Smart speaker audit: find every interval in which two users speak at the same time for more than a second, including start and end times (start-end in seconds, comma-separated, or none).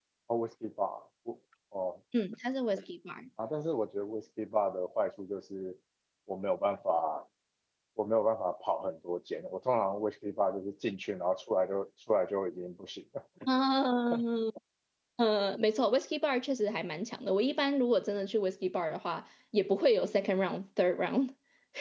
none